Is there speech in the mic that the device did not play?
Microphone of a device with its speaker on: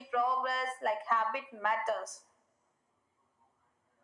No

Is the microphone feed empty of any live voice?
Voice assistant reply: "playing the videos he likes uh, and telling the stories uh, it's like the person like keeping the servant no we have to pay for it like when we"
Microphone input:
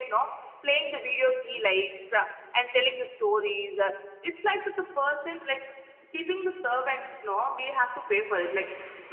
Yes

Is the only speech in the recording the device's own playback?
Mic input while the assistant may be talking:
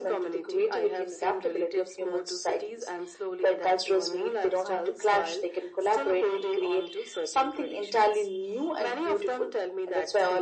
Yes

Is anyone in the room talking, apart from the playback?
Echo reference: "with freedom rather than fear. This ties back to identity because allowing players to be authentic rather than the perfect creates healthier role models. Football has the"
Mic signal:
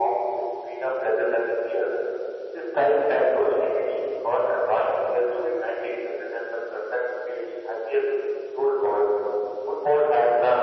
No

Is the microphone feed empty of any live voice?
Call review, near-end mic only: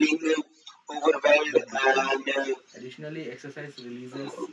No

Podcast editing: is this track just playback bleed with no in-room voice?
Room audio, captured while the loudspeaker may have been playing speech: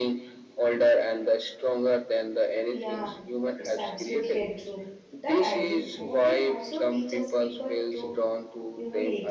No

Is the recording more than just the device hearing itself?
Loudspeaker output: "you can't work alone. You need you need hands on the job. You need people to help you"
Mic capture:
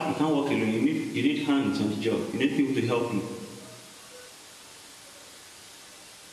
No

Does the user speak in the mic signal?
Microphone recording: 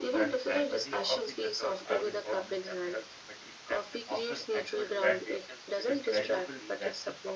Yes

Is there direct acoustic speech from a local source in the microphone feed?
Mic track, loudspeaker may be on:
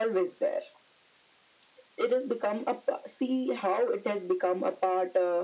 No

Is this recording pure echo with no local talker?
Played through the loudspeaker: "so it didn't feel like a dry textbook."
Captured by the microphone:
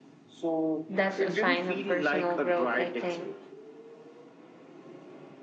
No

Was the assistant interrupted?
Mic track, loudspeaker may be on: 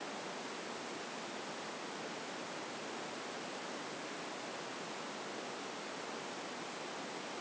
No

